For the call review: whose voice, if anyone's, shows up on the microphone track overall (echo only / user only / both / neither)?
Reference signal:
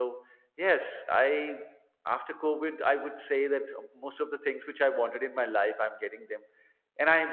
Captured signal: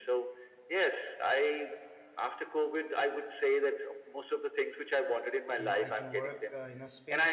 both